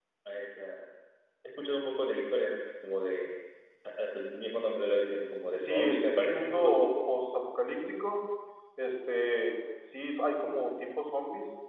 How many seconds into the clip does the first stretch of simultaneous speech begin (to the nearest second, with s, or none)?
6 s